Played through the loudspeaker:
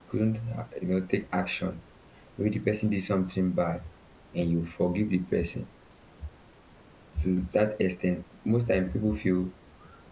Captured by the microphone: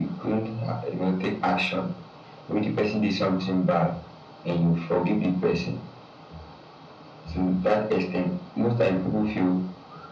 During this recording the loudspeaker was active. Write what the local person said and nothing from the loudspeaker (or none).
none